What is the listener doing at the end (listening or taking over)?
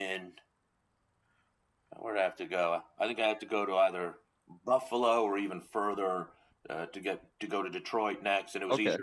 listening